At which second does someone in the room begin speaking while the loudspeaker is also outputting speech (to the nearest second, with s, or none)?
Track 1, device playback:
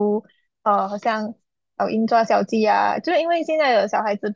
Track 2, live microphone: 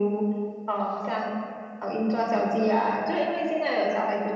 none